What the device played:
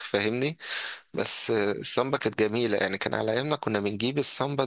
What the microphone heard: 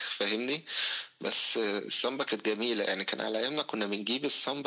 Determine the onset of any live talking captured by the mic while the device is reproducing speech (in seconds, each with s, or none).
none